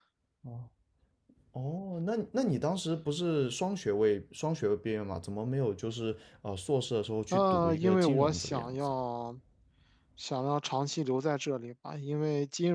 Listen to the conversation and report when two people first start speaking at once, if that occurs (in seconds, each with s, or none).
7.3 s